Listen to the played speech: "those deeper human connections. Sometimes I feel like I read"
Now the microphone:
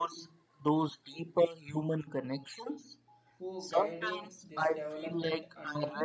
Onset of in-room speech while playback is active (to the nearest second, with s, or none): 3 s